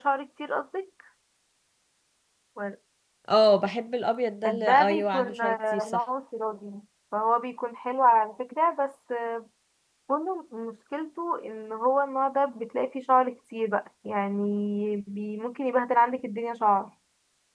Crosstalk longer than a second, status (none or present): present